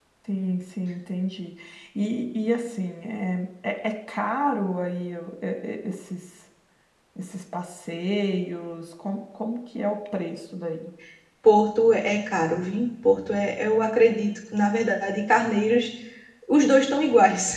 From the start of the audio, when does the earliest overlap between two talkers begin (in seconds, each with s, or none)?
none